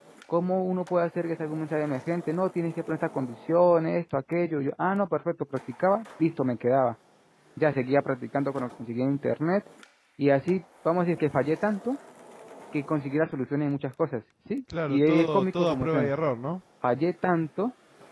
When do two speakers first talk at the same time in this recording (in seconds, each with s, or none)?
14.7 s